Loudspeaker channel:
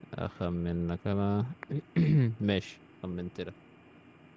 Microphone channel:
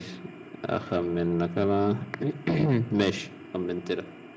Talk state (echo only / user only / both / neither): echo only